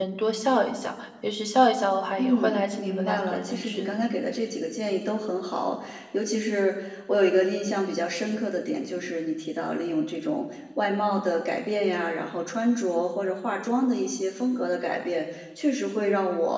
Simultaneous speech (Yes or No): Yes